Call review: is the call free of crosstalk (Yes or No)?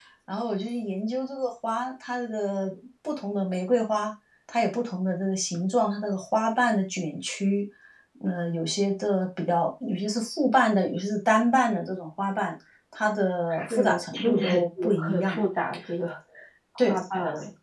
No